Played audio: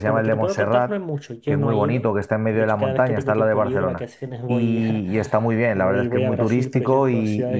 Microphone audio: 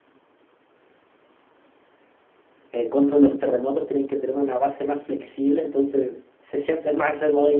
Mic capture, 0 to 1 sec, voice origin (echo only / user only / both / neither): neither